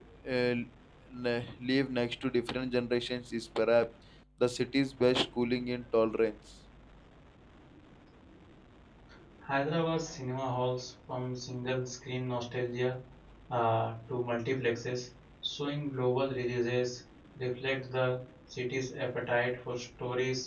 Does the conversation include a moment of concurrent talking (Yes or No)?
No